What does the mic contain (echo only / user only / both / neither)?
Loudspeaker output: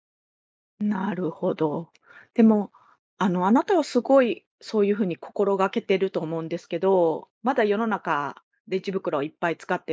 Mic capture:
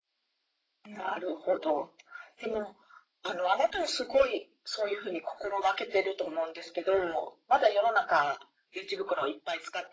echo only